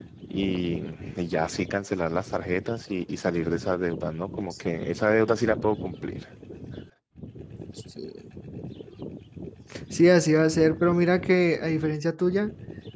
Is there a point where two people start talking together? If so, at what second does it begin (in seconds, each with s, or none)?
none